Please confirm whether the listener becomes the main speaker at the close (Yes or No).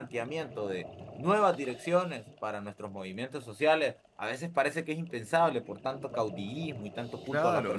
Yes